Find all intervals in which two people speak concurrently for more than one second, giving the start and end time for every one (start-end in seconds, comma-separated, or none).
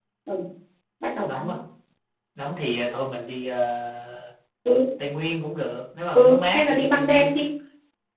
6.2-7.4